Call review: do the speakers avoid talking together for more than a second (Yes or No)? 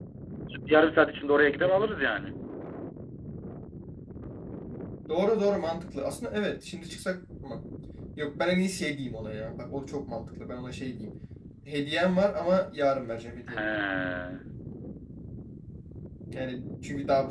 Yes